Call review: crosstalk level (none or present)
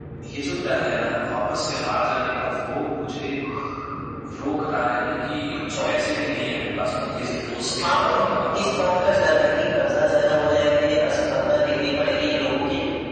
present